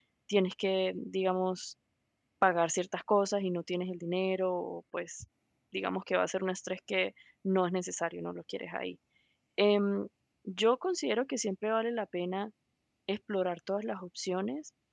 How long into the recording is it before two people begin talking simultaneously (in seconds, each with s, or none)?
none